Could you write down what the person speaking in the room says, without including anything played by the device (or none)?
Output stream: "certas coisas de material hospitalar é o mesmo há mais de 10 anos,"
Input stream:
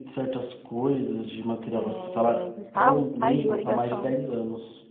É, Gustavo? Caiu a ligação.